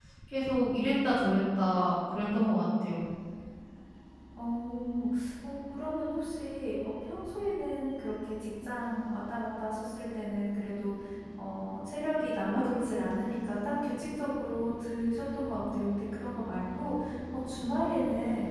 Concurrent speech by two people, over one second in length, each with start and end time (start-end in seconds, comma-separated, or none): none